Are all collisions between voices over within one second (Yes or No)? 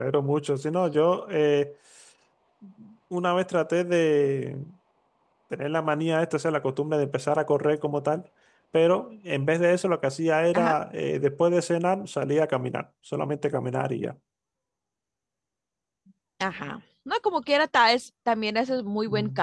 Yes